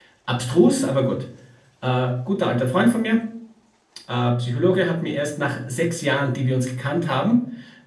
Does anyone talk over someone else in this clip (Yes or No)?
No